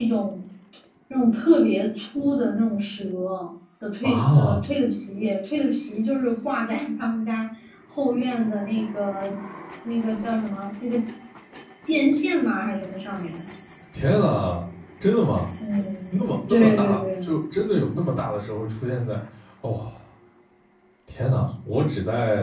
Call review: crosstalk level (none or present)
present